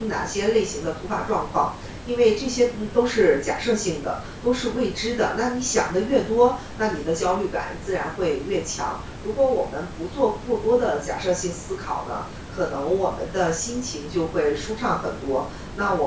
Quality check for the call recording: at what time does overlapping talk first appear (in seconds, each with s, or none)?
none